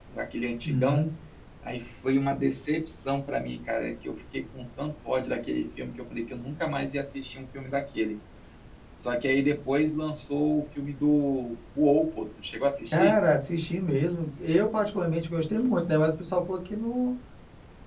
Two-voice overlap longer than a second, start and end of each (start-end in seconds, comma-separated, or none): none